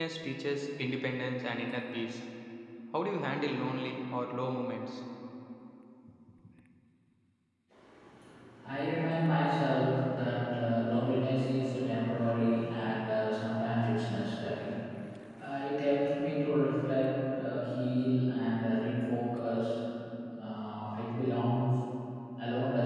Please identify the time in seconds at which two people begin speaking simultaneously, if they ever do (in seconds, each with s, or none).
none